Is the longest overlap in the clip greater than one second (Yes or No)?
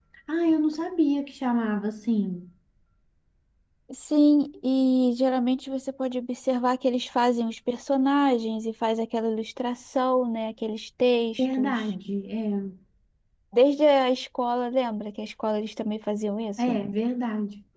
No